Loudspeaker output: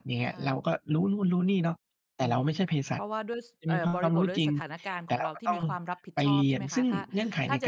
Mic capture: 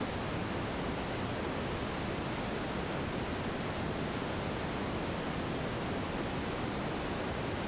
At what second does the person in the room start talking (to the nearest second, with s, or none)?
none